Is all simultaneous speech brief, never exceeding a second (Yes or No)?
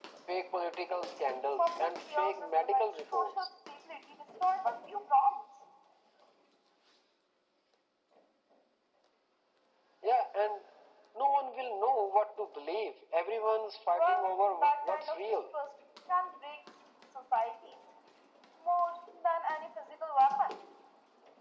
No